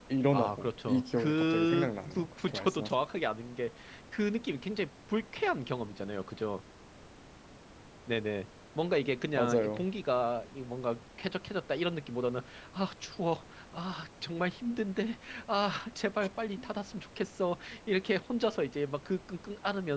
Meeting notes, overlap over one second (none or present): present